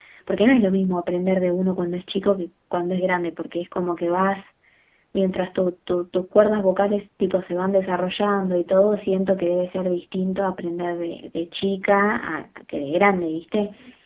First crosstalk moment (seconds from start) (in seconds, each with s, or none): none